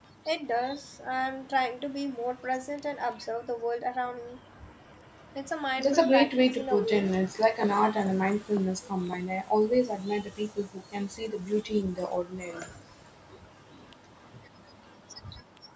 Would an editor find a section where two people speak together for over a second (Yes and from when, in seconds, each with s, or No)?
Yes, from 5.8 s